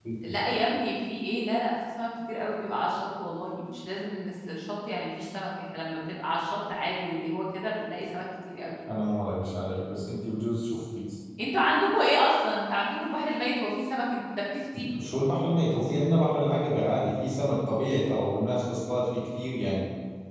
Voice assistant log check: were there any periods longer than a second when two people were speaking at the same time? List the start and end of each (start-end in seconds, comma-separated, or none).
none